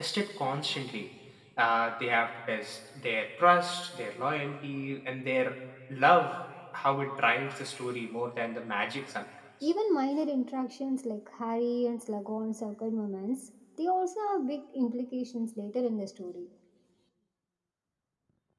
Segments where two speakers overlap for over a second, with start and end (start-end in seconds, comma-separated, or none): none